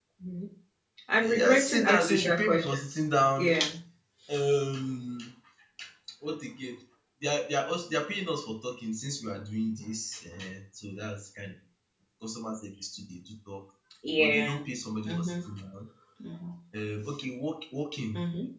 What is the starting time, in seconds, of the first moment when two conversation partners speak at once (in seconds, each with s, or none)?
1.2 s